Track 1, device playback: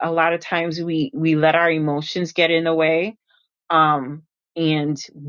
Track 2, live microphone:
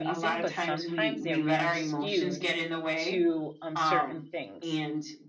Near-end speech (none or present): present